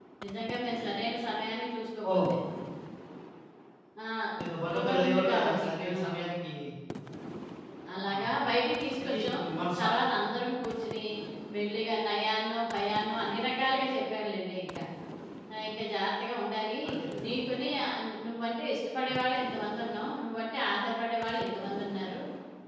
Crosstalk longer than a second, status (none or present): present